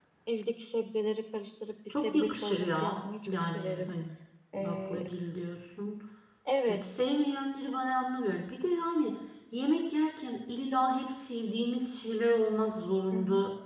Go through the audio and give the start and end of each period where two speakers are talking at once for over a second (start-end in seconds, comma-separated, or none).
1.9-3.9